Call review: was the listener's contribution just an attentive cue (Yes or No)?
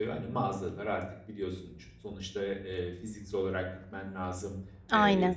Yes